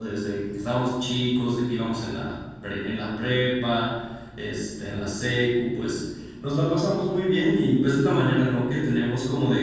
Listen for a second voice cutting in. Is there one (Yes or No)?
No